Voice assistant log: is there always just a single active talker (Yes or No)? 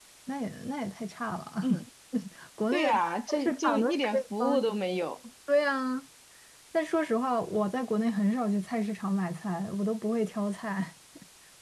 No